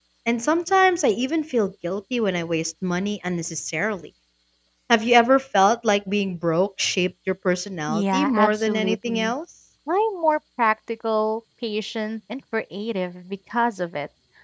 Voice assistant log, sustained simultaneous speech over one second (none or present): present